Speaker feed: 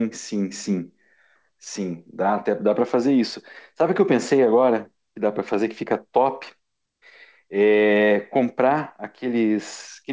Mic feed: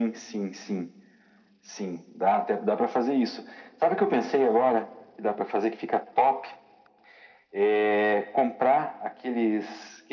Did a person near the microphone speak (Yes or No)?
No